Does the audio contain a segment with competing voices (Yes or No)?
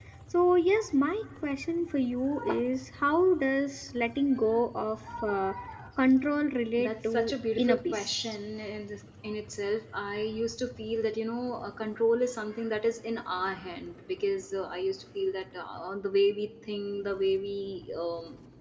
Yes